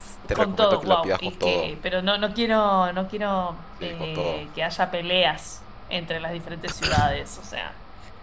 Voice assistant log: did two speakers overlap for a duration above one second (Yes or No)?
Yes